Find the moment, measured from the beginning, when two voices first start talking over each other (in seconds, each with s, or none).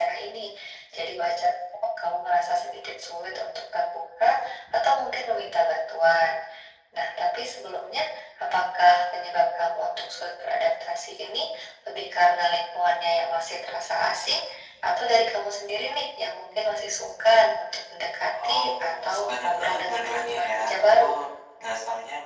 18.3 s